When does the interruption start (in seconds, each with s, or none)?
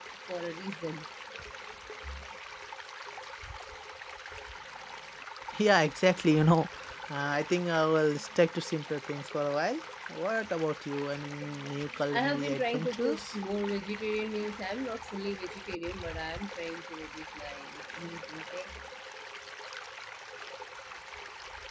12.1 s